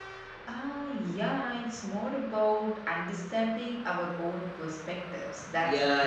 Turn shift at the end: Yes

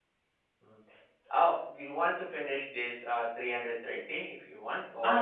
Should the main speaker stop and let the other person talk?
Yes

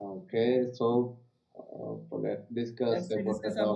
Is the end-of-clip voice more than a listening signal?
Yes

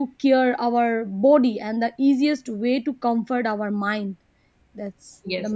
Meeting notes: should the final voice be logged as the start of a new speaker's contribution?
Yes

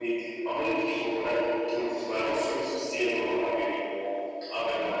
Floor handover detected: Yes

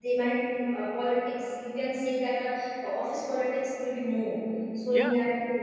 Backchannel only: Yes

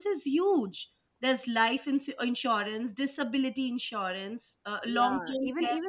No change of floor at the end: No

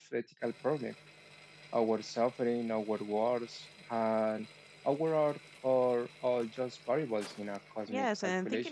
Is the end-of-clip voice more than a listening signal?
Yes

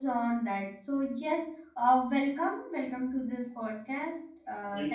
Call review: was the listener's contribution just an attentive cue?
No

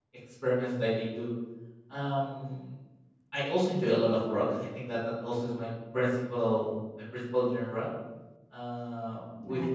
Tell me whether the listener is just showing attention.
Yes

